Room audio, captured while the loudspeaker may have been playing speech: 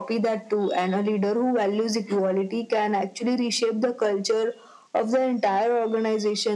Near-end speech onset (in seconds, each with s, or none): none